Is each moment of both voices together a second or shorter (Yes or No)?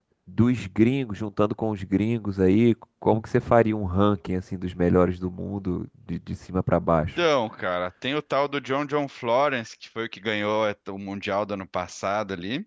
Yes